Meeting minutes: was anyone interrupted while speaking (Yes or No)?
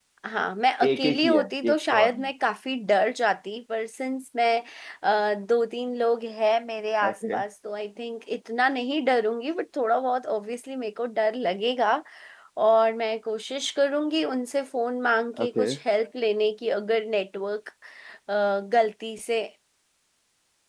Yes